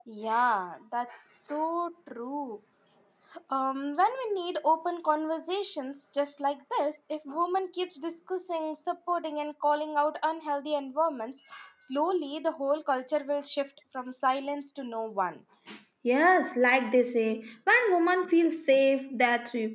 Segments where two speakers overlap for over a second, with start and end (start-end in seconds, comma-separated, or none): none